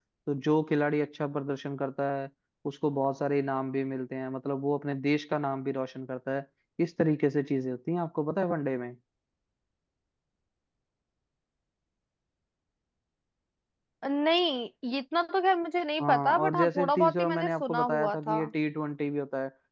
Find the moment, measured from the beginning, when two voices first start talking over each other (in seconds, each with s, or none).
16.0 s